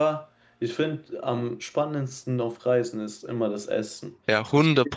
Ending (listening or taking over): taking over